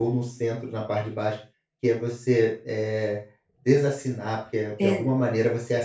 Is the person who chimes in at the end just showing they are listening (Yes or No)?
Yes